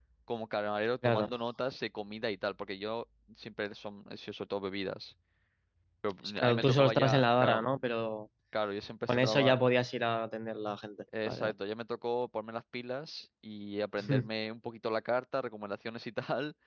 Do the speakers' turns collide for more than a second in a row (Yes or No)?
Yes